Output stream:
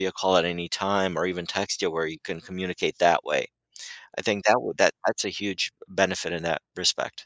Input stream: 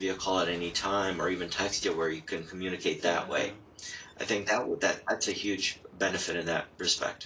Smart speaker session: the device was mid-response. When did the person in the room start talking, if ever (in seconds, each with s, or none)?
3.0 s